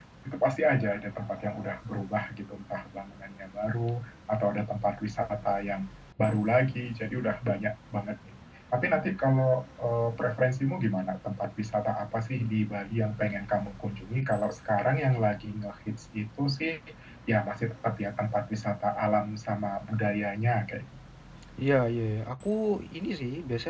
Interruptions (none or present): none